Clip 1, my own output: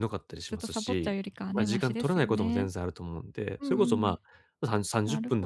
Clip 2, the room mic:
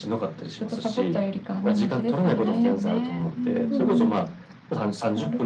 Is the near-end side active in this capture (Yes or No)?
Yes